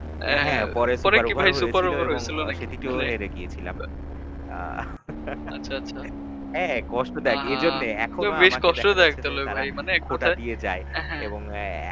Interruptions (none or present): present